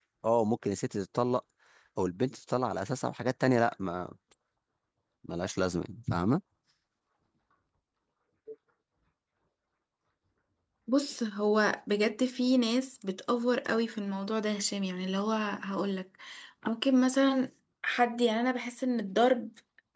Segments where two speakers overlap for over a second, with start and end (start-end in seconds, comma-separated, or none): none